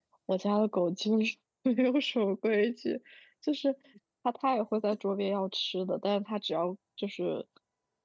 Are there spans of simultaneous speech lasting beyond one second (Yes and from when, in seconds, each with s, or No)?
No